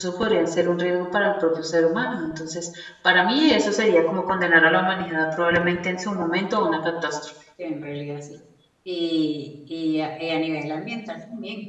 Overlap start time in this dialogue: none

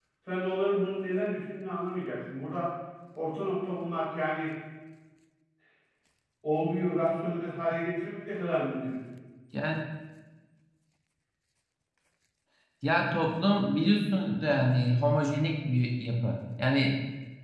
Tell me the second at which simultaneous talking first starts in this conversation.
none

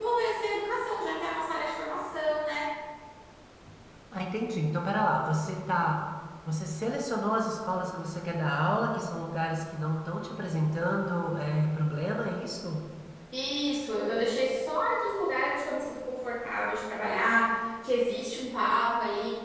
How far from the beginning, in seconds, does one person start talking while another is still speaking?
none

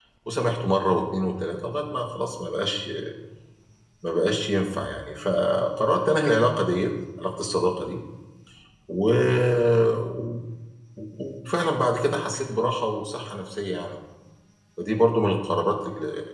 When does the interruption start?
none

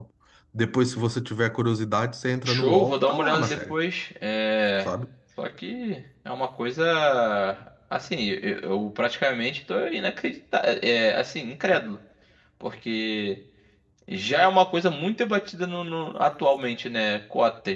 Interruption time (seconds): 2.5 s

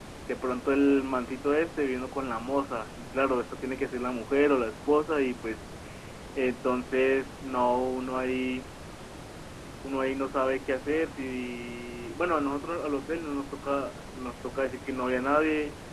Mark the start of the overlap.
none

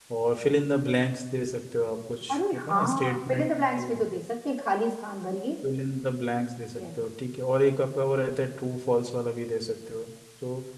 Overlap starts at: 2.3 s

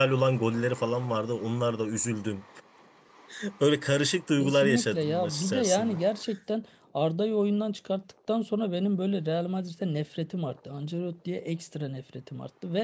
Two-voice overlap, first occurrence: 4.4 s

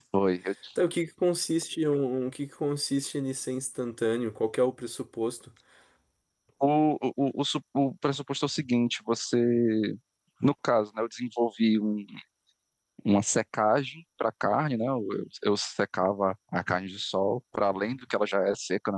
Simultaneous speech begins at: none

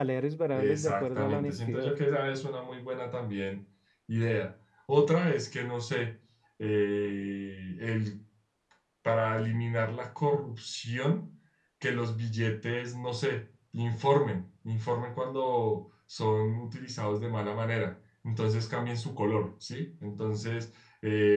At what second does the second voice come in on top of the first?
0.6 s

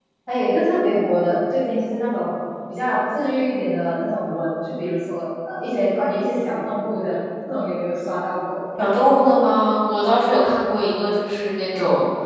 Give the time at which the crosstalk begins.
none

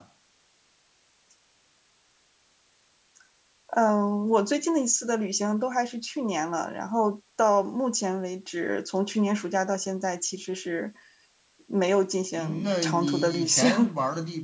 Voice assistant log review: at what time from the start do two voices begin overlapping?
12.3 s

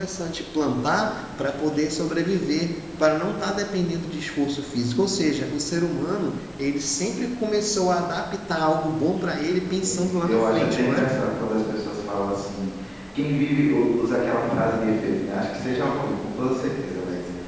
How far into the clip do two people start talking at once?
9.8 s

